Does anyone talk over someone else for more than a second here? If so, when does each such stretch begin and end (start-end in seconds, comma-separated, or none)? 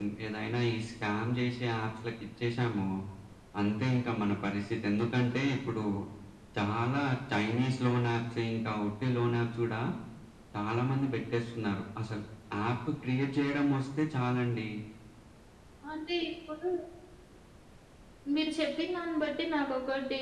none